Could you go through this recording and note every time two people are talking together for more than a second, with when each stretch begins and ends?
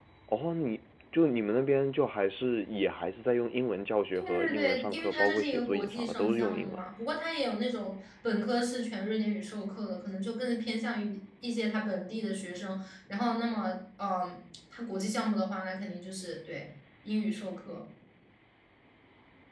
4.2-6.8

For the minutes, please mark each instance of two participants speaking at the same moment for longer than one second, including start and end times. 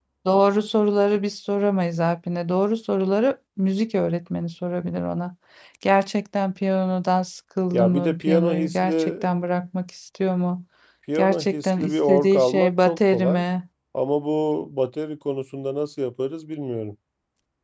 7.7-9.1, 11.2-13.4

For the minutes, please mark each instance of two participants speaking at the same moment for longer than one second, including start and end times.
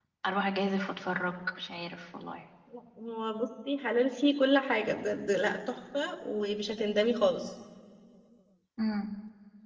none

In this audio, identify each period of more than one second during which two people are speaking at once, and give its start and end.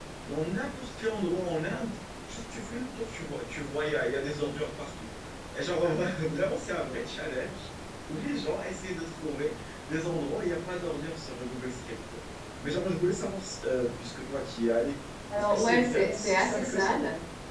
15.3-16.9

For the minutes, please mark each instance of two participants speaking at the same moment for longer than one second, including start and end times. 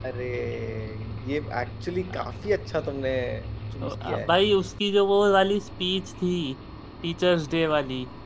none

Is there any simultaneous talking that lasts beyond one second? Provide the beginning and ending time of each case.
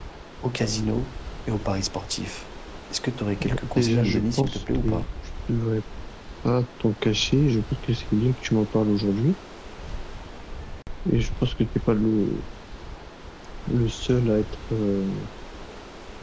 3.8-5.0

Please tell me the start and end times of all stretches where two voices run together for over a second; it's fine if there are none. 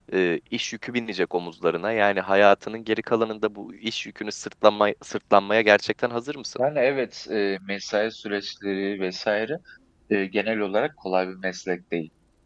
none

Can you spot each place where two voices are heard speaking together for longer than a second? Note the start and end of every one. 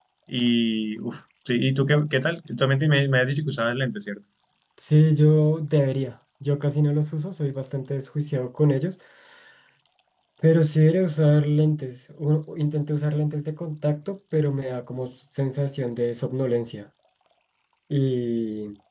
none

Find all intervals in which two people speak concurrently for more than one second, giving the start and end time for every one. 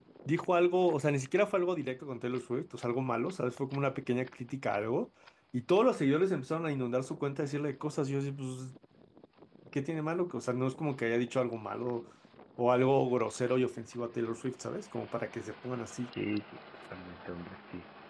none

